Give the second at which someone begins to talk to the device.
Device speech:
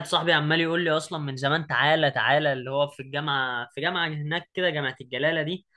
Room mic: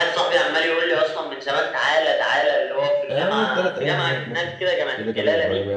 3.1 s

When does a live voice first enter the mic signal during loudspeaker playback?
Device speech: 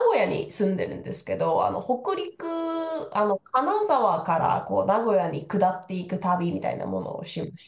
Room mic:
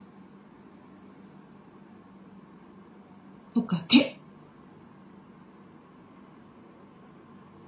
3.5 s

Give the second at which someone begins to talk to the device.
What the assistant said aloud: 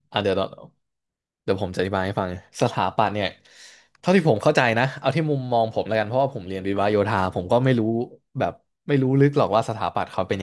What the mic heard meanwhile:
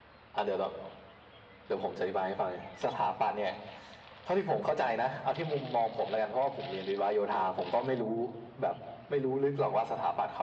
none

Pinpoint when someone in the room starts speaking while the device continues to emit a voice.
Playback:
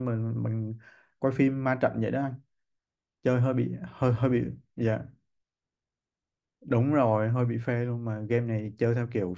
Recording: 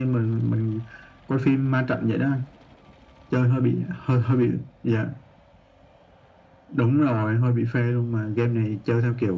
none

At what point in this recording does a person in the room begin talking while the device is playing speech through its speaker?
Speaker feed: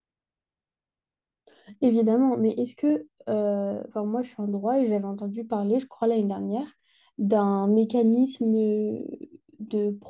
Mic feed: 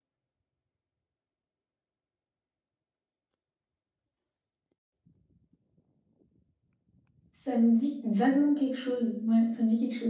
7.3 s

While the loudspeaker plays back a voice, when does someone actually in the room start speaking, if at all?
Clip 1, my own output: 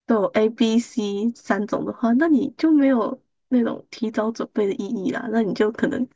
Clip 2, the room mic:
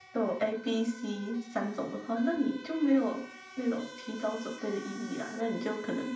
none

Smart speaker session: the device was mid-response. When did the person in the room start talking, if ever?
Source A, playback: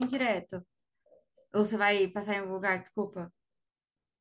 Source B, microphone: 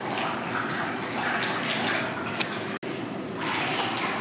none

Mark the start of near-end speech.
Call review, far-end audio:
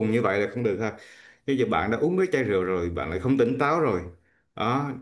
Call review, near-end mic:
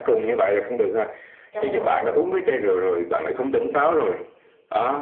1.5 s

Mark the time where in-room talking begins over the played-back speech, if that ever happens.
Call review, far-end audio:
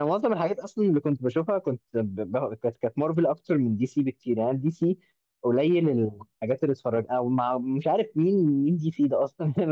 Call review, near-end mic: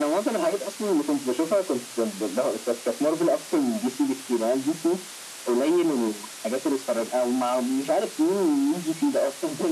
none

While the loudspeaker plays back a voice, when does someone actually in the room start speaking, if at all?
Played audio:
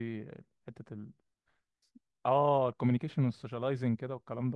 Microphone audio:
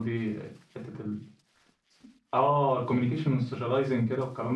none

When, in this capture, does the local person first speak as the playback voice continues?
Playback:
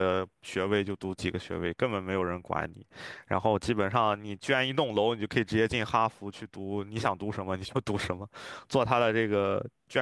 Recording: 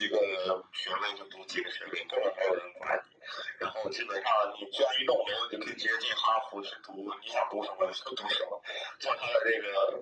none

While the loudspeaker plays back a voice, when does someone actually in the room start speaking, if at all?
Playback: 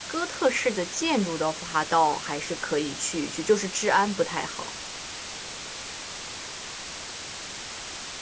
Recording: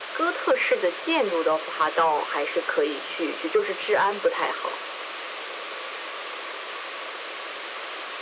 none

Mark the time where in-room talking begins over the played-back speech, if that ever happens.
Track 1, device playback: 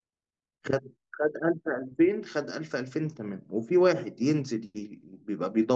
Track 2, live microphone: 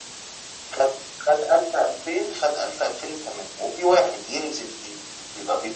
none

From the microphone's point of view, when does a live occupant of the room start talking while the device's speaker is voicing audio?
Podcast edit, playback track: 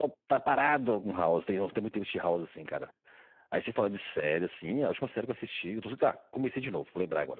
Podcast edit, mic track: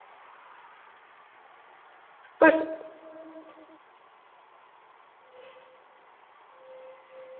2.4 s

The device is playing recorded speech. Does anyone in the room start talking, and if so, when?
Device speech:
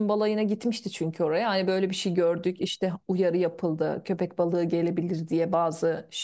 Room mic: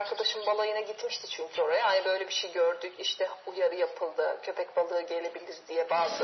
none

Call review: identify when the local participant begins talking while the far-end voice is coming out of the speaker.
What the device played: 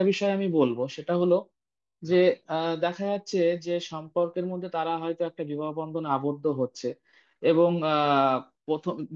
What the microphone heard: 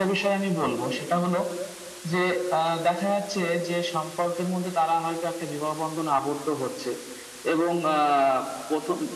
none

